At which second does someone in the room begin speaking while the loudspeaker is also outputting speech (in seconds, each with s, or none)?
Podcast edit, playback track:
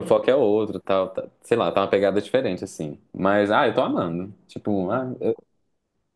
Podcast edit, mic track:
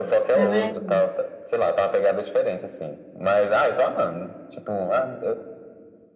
0.3 s